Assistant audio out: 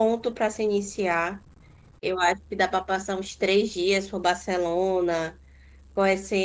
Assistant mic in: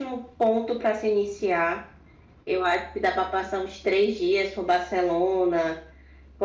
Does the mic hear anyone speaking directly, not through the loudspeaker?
No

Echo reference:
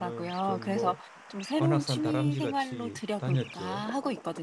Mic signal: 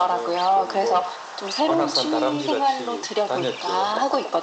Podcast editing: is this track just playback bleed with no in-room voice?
Yes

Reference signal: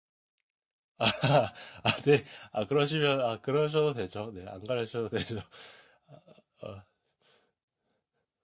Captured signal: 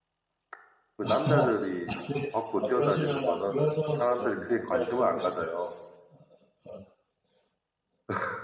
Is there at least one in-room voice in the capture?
Yes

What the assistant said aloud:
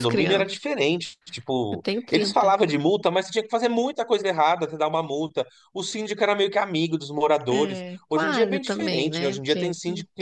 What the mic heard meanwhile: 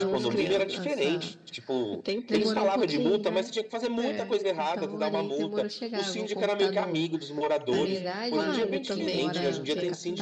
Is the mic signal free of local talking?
No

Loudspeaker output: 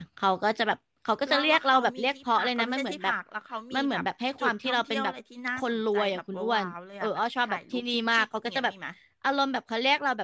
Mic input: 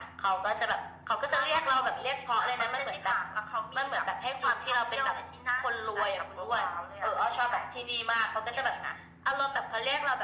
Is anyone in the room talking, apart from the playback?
No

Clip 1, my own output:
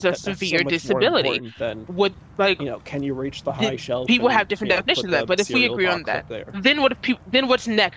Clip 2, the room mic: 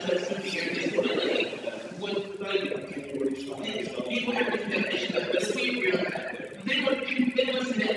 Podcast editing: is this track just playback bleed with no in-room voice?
Yes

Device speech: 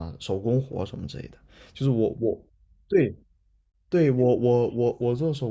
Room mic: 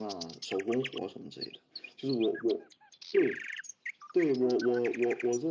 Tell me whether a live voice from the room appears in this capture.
No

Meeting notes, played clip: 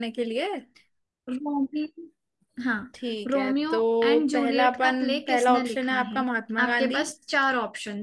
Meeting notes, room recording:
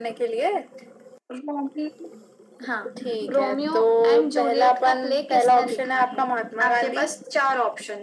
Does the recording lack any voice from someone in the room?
Yes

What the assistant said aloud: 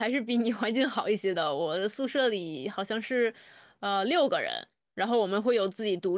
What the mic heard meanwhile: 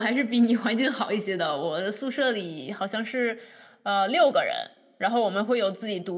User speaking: No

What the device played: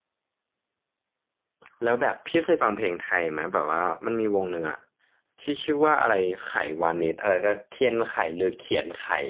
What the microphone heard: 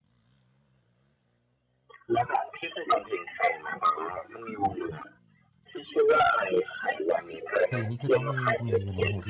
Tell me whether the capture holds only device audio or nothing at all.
No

